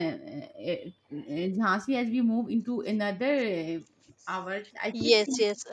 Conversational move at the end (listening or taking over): taking over